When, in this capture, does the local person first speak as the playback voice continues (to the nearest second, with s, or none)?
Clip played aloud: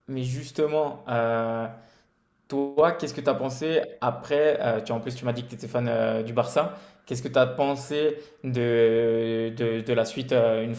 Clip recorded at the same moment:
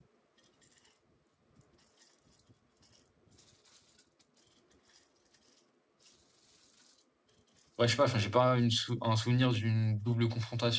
8 s